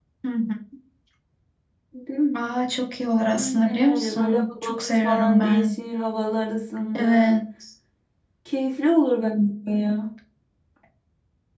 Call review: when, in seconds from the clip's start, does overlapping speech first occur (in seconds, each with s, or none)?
3.3 s